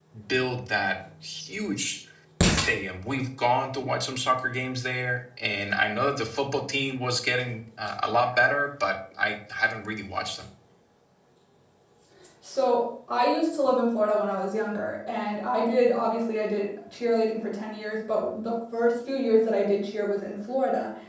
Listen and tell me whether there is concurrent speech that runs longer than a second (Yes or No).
No